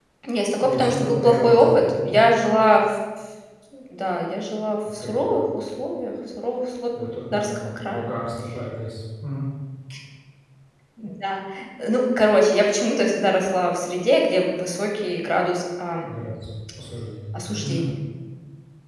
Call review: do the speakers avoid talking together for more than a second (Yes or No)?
No